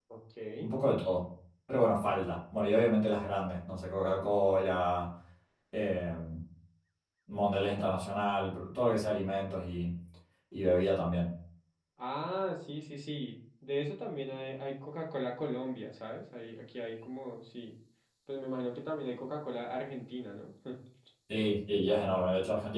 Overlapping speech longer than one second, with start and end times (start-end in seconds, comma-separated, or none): none